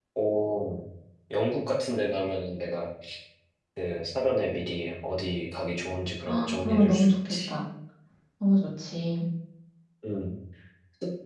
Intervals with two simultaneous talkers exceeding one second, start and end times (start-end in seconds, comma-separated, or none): 6.3-7.5